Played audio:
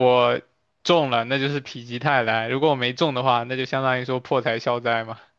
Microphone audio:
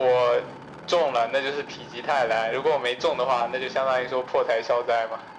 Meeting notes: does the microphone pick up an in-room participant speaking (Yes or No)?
No